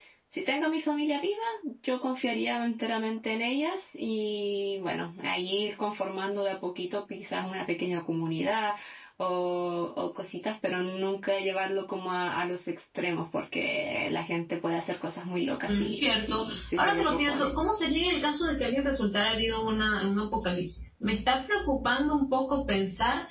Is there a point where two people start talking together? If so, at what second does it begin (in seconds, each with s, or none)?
15.7 s